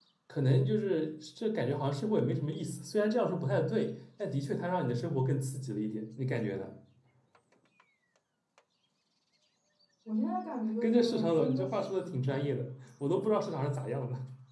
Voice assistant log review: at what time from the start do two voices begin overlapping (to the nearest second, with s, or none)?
11 s